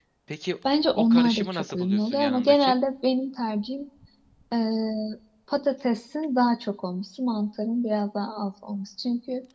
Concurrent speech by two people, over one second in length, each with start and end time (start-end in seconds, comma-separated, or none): 1.0-2.8